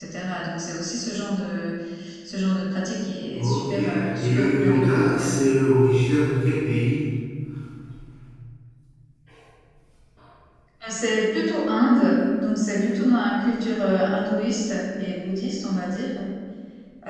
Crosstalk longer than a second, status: present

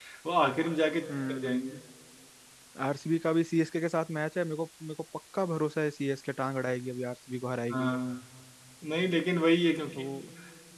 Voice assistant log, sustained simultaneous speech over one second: none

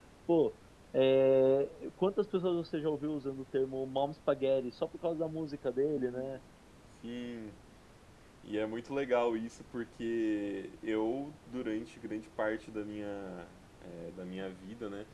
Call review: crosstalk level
none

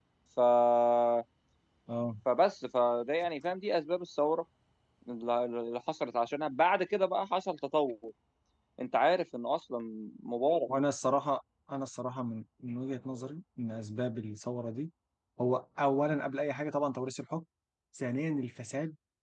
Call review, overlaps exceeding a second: none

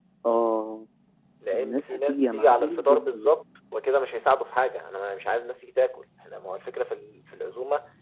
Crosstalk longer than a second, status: present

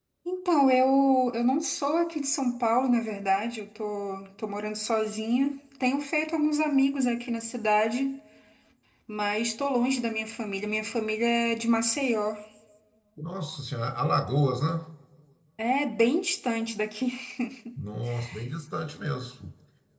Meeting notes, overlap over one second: none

